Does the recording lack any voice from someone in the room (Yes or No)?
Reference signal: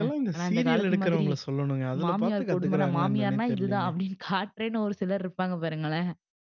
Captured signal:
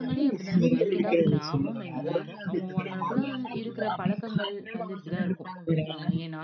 No